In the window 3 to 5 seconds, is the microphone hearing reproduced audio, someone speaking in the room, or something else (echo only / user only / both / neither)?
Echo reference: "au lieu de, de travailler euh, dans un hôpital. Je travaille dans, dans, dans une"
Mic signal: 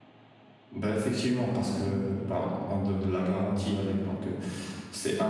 user only